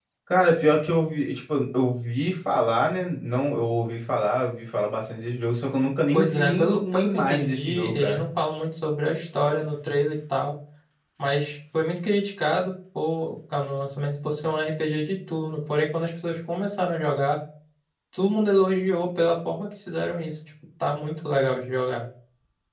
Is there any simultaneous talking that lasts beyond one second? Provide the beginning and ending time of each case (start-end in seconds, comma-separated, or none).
6.1-8.2